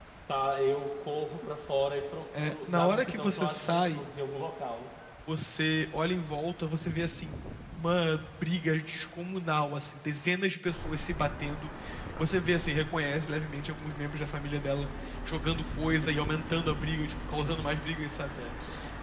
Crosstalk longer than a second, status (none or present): present